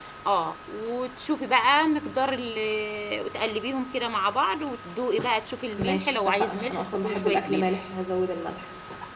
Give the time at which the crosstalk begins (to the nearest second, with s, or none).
6 s